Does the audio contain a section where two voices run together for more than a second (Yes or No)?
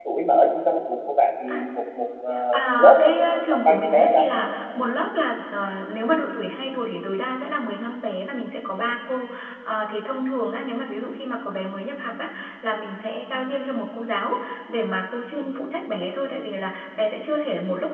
Yes